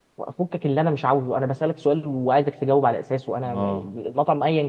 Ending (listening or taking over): listening